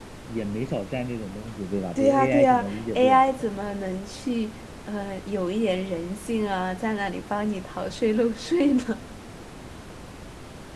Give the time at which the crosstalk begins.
2.0 s

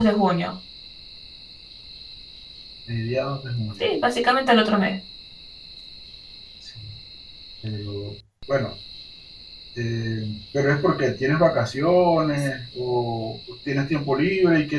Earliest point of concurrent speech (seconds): none

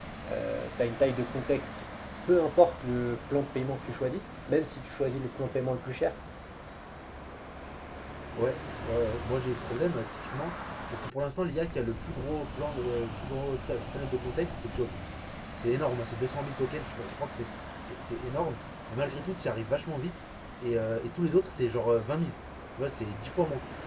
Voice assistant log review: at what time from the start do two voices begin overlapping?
none

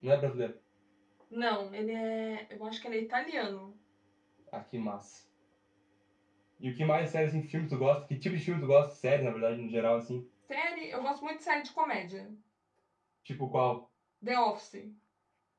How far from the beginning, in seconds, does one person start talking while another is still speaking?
none

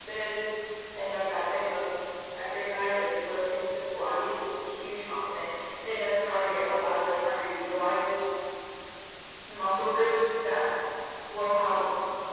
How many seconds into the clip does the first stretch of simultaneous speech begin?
none

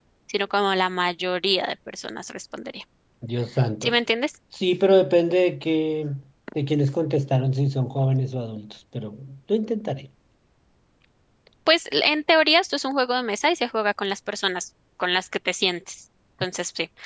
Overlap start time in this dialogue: none

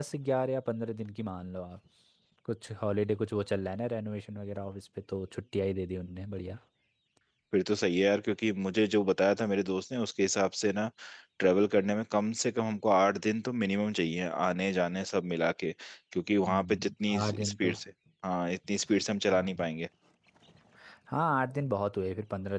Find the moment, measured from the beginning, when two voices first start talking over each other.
16.4 s

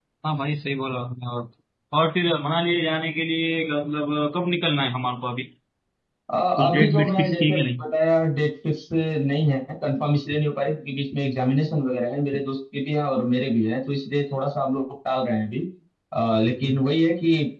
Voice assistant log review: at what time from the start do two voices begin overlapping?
6.6 s

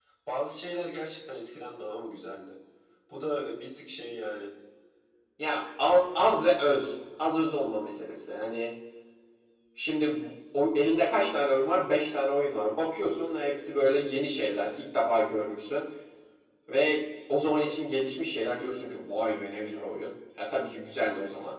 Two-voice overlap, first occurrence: none

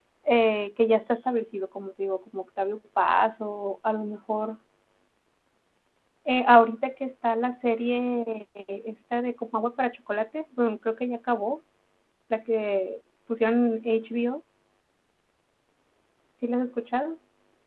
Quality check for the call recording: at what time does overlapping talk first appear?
none

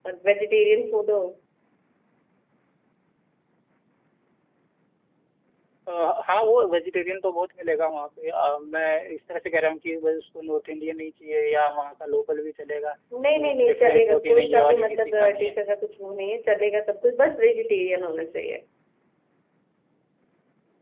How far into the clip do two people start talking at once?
13.4 s

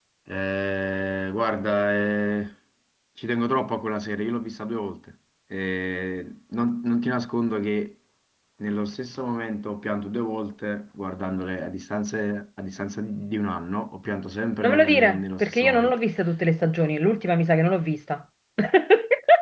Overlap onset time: 14.6 s

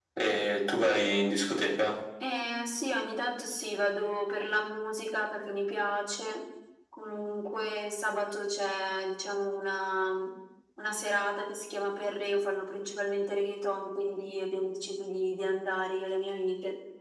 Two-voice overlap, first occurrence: none

